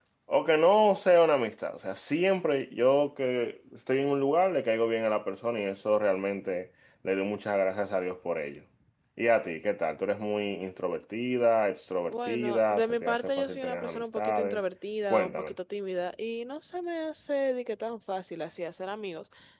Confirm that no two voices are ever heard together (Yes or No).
No